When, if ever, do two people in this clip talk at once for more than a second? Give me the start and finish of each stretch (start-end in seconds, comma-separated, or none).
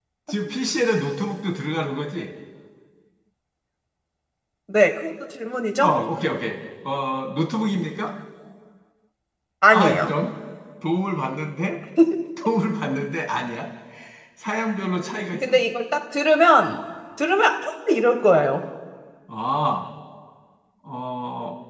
none